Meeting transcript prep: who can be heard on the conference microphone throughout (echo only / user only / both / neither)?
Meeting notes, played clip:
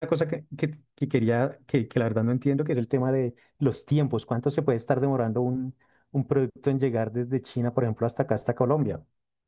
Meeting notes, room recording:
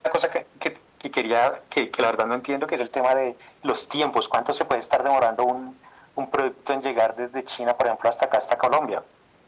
echo only